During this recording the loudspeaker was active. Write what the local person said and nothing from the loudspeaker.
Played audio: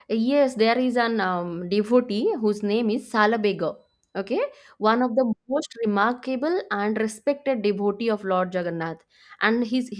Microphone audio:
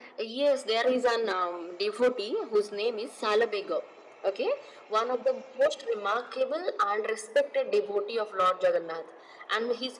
none

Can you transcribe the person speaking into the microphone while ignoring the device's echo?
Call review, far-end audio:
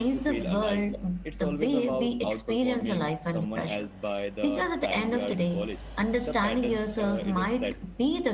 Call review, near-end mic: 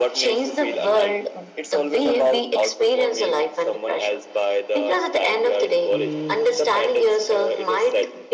mm,

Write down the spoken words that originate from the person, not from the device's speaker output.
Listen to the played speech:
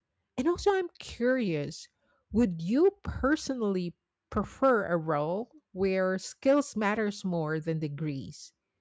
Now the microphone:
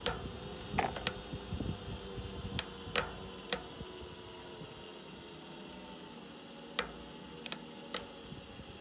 none

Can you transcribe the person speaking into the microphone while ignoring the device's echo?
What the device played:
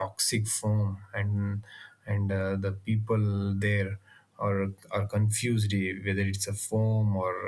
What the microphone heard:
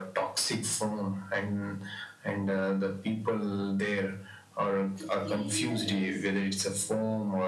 to clean the lakes

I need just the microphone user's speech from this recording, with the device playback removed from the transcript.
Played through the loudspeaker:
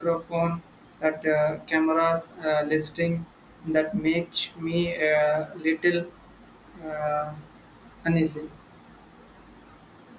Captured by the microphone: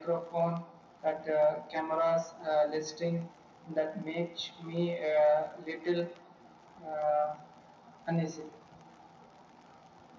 none

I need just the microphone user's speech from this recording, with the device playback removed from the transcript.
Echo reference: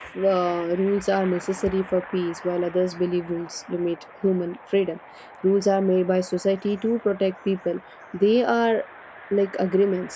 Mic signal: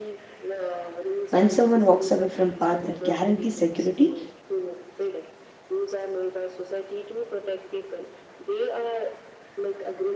When someone walks away from path that guarantees security

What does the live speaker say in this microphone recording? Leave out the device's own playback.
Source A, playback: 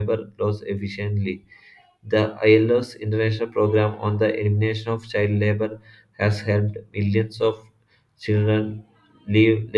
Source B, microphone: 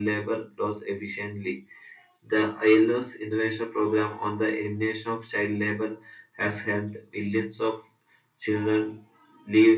none

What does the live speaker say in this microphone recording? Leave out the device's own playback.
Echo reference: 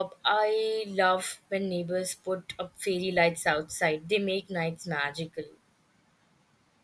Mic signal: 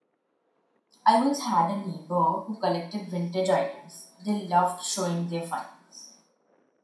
I once had a neighbor who collected vintage items. They loved showing their finds.

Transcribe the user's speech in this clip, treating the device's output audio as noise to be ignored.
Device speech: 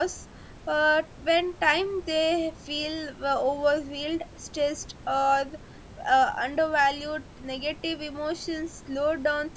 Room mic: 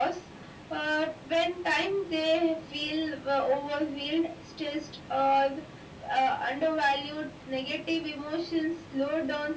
none

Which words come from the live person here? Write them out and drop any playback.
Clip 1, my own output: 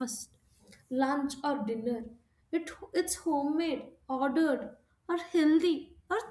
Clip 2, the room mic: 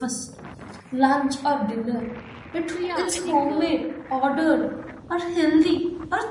So, yeah, I think uh,

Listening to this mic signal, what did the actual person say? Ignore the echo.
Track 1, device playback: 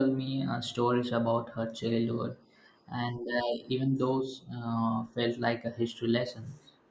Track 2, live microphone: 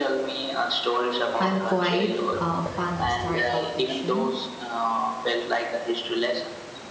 I'm quite uh, fond of historical fiction,

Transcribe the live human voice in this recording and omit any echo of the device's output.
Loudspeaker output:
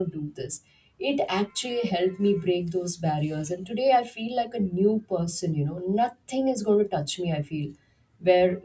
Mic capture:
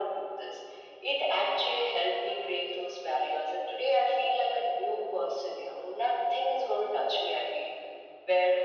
none

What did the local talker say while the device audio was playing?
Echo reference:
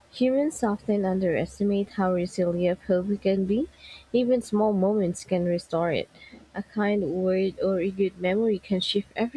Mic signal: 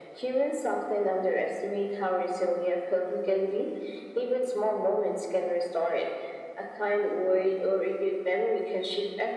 none

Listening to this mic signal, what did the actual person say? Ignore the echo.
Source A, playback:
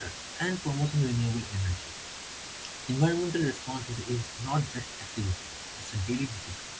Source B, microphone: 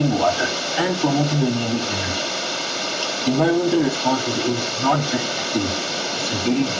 none

